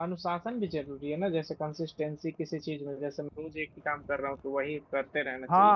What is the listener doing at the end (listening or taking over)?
taking over